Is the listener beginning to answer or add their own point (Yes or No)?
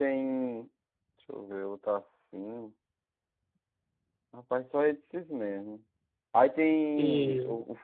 No